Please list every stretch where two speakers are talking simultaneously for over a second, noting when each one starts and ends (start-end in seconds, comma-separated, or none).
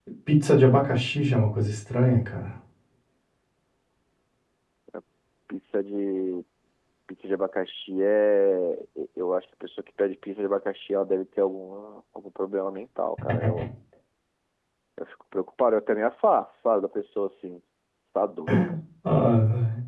none